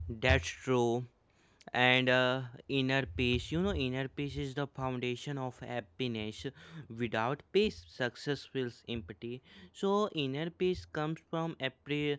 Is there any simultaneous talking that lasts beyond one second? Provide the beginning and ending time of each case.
none

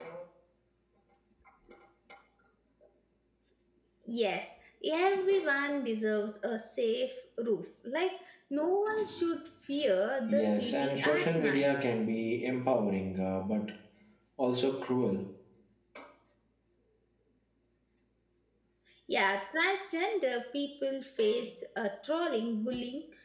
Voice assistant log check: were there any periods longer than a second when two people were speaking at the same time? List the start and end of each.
10.3-11.7

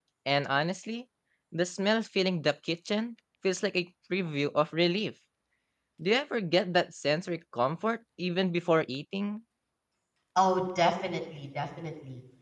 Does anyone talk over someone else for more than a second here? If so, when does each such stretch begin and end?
none

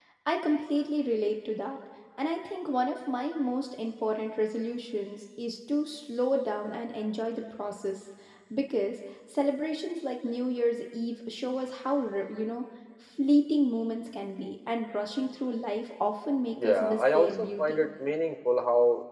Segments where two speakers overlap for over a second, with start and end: 16.6-17.9

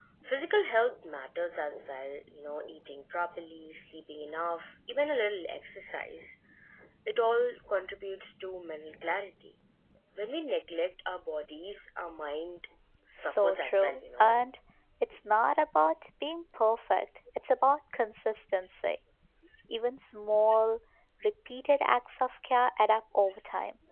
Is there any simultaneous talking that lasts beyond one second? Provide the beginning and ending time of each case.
13.2-14.4

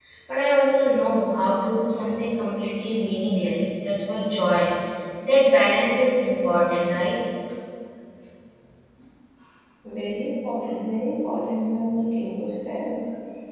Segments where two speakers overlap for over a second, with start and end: none

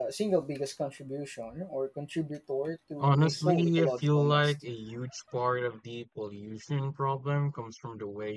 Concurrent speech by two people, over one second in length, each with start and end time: 3.0-4.5

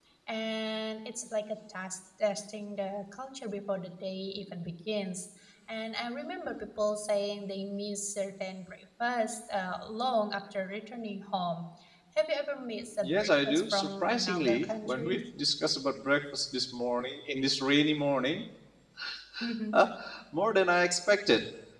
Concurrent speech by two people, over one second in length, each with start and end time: 13.0-15.2

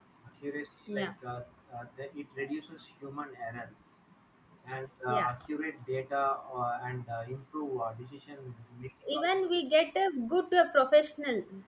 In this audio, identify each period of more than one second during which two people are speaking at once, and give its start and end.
none

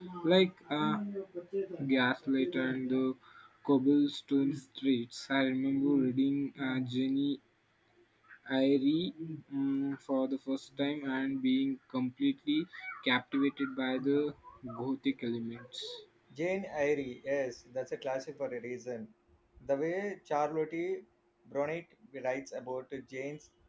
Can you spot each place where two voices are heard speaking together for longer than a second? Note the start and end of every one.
none

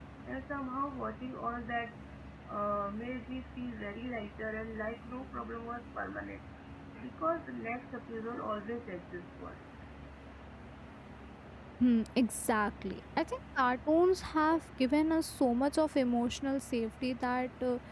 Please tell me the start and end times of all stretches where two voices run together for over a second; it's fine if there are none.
none

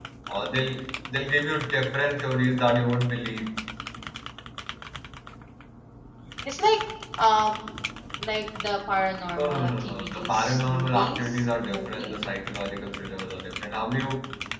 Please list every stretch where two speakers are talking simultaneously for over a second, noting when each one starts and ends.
9.4-12.2

